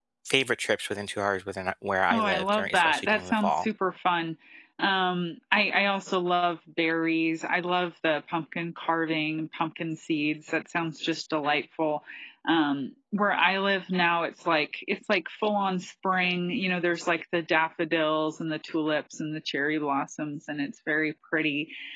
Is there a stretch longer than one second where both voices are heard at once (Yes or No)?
Yes